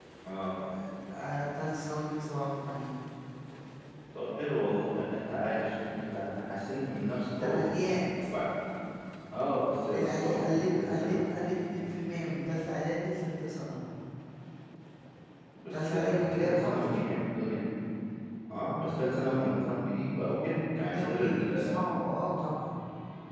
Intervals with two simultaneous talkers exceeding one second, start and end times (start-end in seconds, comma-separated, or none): 9.9-11.2, 15.7-17.0, 20.8-22.0